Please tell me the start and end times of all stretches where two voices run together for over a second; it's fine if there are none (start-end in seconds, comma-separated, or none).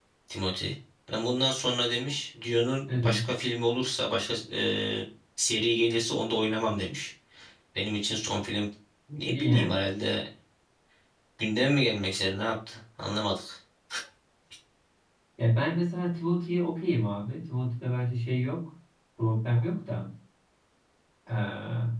none